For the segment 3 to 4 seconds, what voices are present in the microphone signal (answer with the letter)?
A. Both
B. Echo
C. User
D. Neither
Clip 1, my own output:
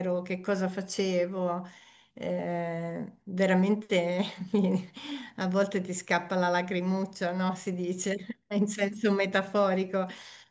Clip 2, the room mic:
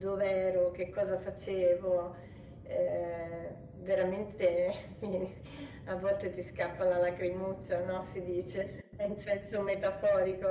B